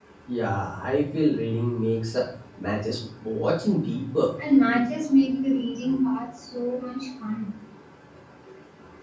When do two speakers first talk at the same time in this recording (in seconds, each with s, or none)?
none